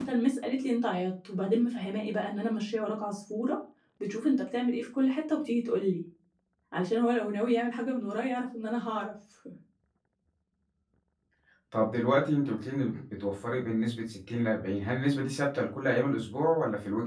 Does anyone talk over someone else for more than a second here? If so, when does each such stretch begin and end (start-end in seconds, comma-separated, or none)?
none